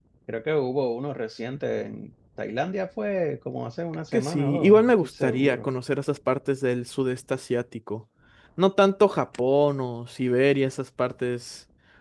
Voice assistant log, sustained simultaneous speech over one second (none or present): present